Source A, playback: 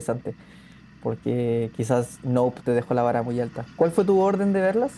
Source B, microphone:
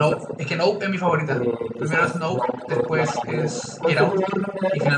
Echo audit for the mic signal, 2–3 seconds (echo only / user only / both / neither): both